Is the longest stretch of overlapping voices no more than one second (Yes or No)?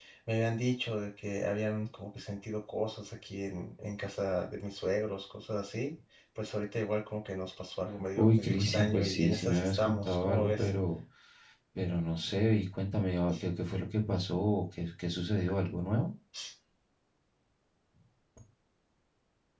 No